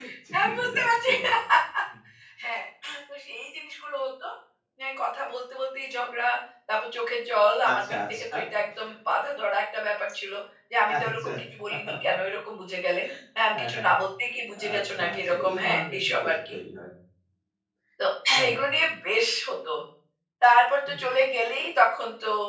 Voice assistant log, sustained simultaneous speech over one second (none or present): present